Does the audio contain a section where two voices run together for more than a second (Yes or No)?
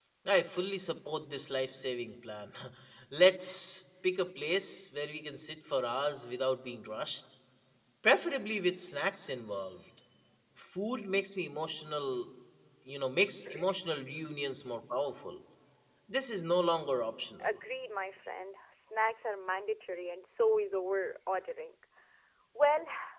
No